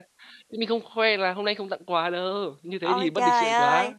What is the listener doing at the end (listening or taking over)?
taking over